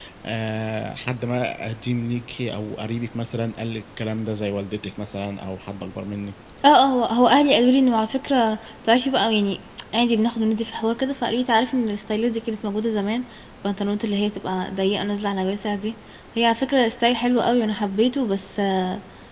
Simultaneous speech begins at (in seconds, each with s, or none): none